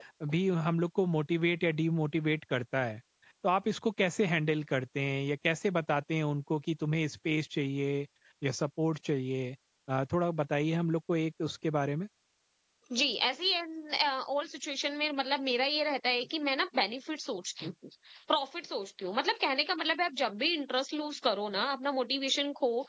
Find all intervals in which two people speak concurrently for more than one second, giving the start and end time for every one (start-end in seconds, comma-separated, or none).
none